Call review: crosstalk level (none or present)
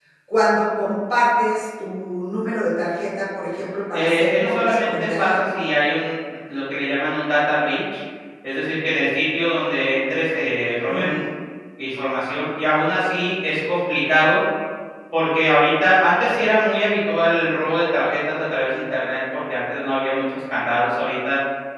present